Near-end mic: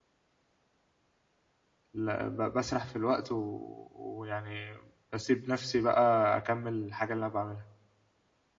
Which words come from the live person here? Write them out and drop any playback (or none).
ل ب باسرح في الوقت و ويعني باسيب نَفْسي بقى أكمّل الحاجة اللي أنا باعملها.